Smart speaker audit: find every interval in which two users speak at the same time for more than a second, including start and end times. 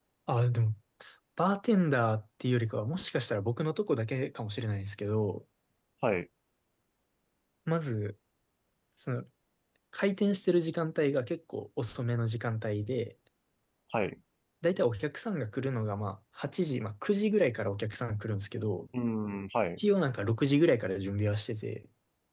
none

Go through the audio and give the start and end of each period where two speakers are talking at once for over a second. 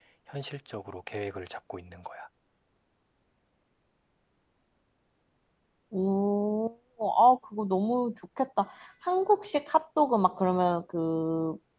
none

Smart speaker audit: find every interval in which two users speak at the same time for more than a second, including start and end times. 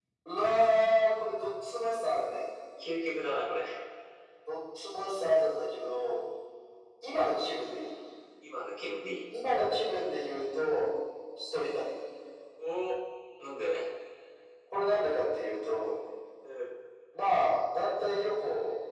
none

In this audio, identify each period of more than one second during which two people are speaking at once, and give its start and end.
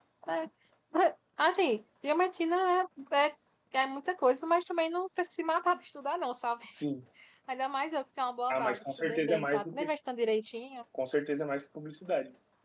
8.5-9.9

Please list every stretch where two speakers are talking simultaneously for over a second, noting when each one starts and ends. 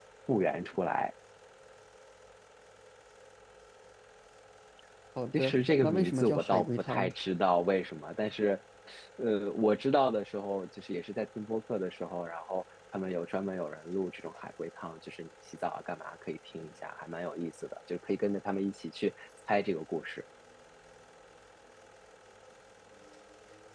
5.3-7.1

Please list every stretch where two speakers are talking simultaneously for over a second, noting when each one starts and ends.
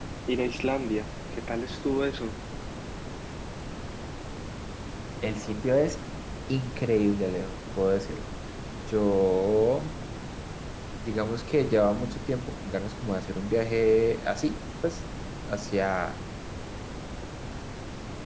none

